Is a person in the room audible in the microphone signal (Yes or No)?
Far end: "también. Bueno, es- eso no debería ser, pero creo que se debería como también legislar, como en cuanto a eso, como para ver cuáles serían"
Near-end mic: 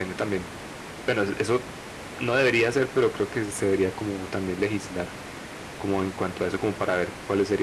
No